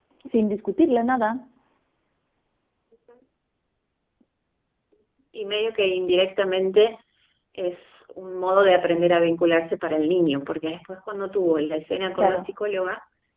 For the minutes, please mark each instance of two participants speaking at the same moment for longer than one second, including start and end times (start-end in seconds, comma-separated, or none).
none